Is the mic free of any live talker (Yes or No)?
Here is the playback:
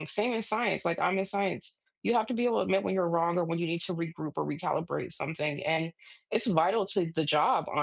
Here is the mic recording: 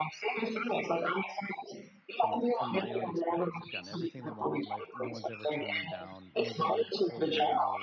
No